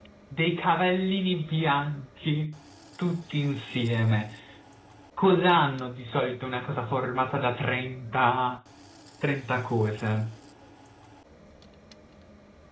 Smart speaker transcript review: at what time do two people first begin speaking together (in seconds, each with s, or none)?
none